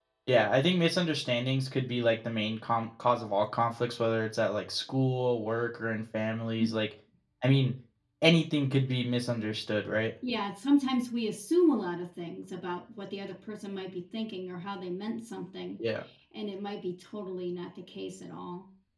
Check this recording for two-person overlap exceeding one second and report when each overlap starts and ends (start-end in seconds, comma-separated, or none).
none